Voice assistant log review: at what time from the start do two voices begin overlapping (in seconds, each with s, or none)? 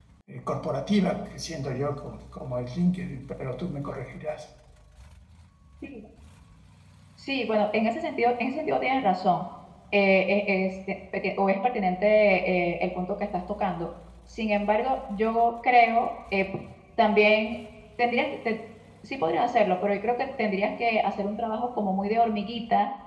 none